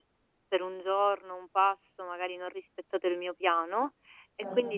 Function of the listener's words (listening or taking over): listening